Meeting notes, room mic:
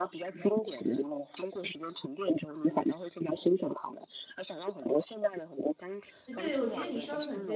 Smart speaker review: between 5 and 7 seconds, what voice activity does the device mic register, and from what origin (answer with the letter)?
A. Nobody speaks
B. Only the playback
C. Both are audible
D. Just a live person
C